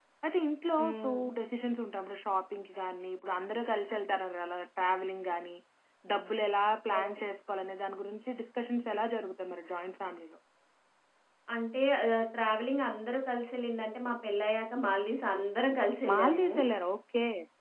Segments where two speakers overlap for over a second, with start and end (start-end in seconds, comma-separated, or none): none